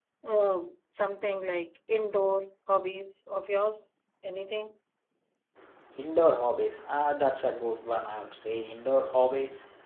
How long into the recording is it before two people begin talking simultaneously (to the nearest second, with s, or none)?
none